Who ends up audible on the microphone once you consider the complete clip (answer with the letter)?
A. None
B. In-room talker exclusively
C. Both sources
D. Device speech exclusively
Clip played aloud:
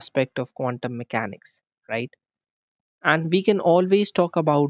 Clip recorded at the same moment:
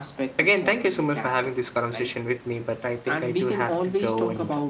C